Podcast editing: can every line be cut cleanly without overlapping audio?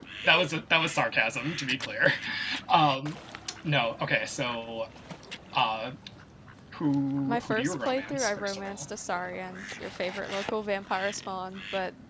No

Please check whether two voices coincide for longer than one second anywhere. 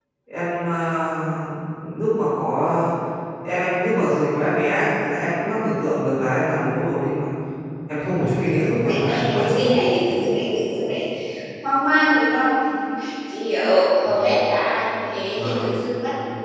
Yes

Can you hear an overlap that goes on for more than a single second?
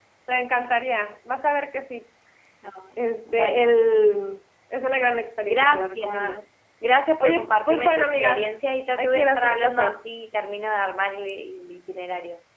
Yes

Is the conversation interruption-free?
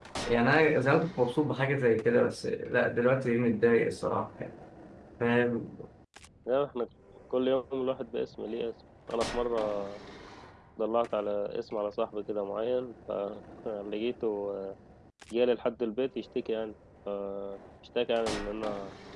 Yes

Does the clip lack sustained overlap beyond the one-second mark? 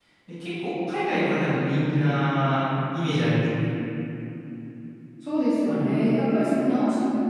Yes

